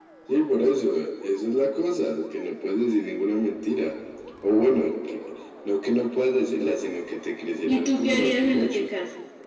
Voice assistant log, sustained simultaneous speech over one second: present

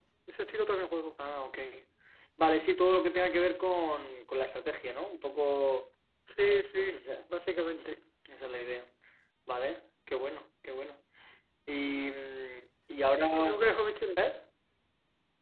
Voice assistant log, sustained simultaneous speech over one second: none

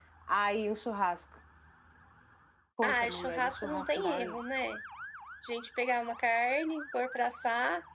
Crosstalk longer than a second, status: present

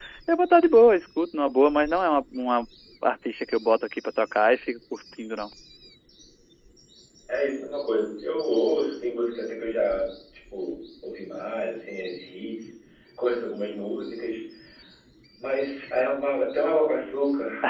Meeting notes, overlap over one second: none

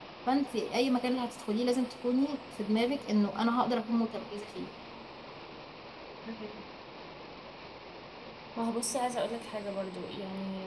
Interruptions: none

